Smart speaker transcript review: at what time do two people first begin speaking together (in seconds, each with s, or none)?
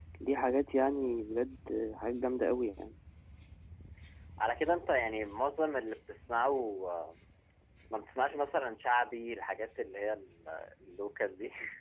none